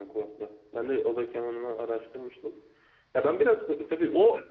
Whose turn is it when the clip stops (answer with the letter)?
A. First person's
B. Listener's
A